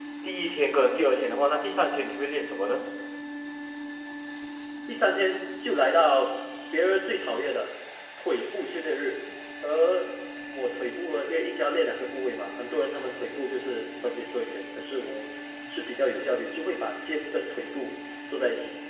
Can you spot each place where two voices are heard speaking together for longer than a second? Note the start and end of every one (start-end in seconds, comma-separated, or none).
none